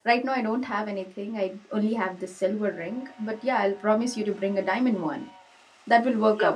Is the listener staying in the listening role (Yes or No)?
No